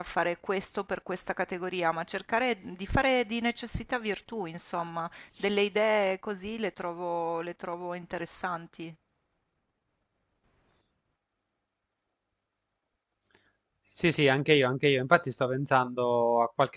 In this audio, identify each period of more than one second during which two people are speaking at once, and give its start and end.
none

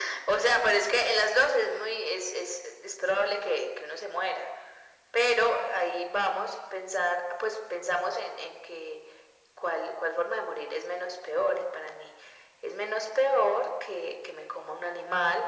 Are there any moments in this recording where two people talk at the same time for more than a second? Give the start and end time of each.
none

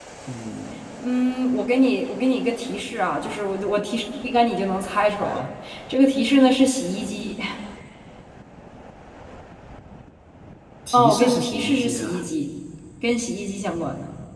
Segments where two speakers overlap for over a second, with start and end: 10.9-12.2

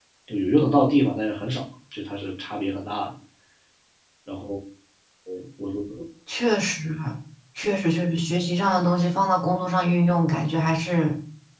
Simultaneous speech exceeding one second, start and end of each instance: none

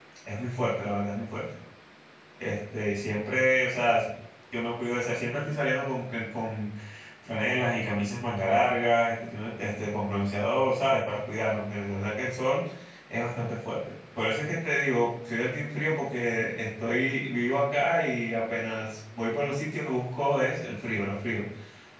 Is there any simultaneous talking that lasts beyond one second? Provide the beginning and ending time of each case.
none

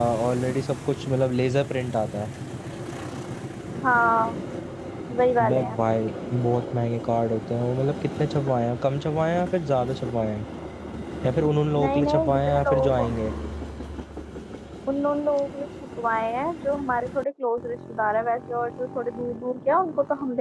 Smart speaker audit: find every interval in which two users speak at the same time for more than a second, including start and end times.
11.8-13.1

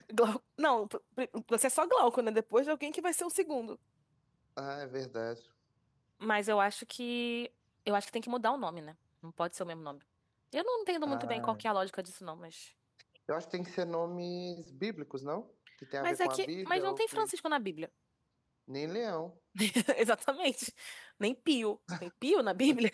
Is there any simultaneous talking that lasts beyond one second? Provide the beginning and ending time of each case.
16.0-17.3

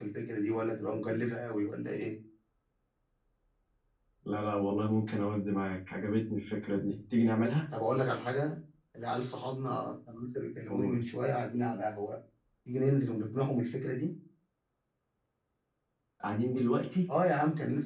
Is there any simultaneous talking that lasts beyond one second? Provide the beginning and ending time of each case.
none

